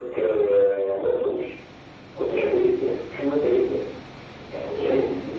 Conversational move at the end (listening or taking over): listening